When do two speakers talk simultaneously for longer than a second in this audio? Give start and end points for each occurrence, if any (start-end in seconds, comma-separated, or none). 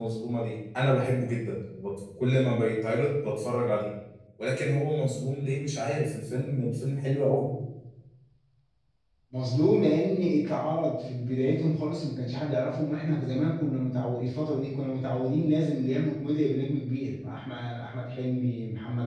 none